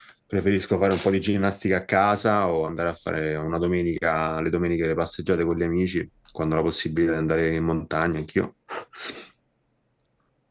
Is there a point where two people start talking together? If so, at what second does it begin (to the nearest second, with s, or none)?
none